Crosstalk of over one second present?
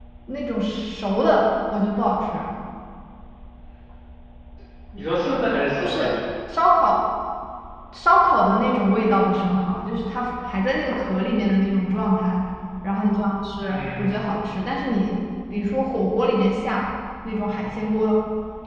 No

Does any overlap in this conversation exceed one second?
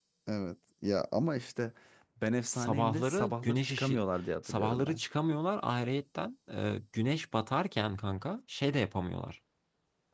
Yes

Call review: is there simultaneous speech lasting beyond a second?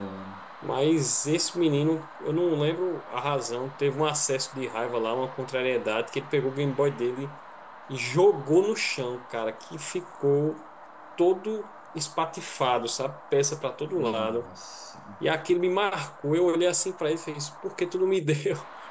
No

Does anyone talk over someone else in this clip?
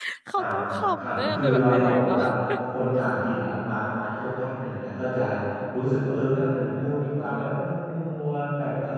Yes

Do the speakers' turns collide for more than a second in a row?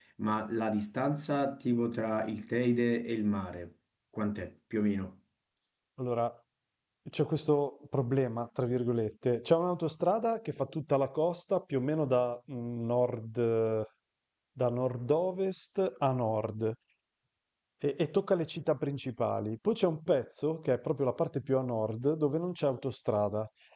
No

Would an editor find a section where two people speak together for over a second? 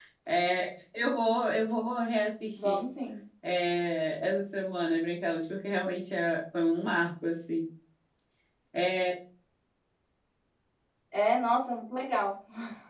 No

